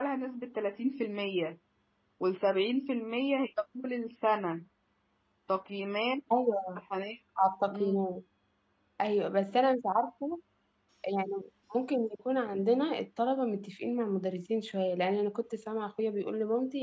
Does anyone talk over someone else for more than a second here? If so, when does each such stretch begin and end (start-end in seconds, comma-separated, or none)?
none